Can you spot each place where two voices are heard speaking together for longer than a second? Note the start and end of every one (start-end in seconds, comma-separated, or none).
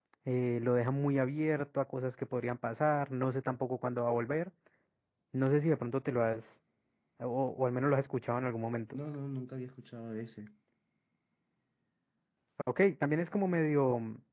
none